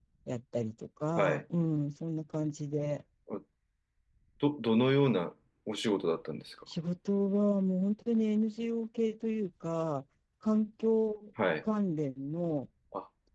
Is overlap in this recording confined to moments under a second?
Yes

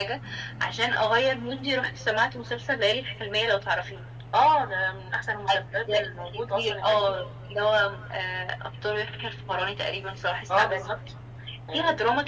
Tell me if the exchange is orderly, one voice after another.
No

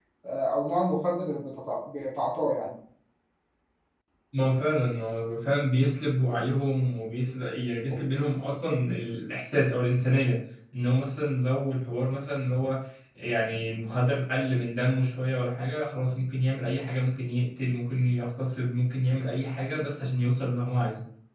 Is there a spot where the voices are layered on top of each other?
No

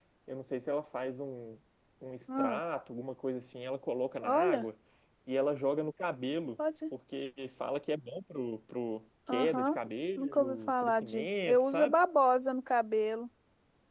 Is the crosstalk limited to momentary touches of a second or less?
No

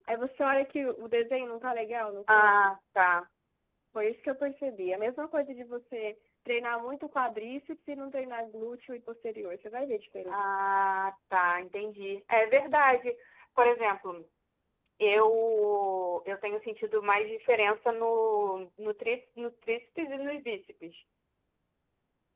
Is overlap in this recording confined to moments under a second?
Yes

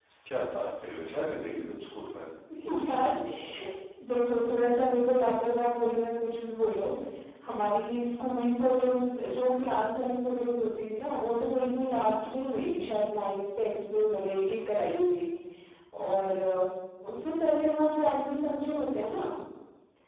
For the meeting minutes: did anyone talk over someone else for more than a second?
No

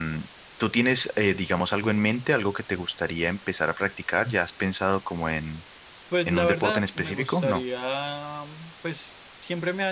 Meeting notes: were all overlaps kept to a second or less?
No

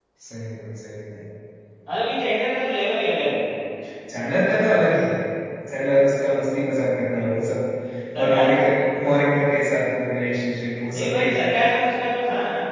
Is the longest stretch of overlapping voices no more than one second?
Yes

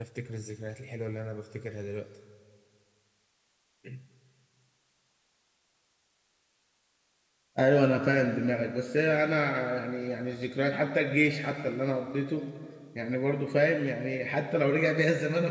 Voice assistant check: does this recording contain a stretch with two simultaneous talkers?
No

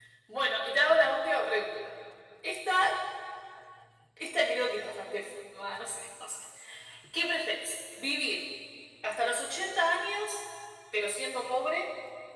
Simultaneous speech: No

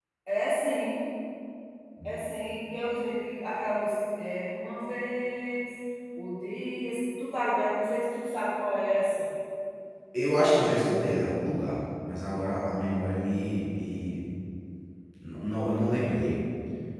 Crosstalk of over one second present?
No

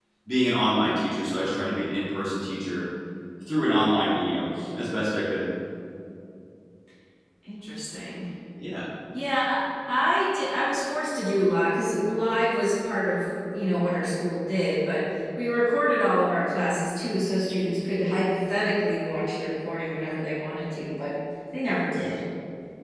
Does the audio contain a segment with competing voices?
No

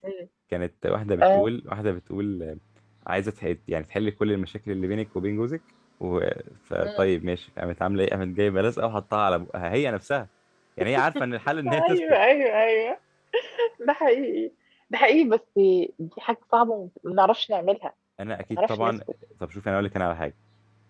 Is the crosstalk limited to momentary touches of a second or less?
Yes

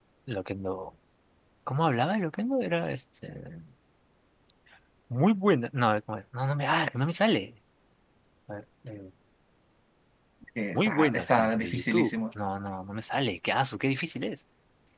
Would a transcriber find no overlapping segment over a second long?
No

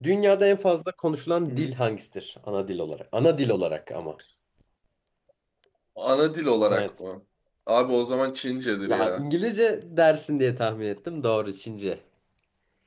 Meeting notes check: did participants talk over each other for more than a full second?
No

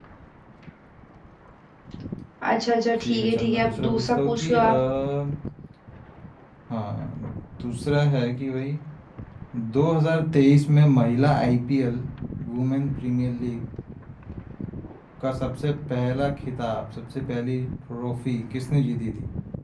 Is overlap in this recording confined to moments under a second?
No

